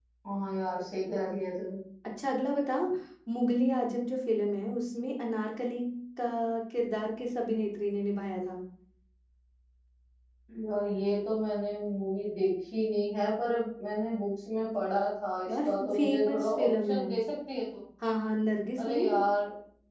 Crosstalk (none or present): present